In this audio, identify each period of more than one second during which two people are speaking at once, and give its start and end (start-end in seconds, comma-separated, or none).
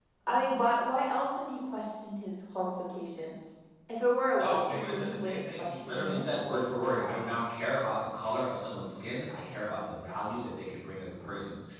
4.4-6.3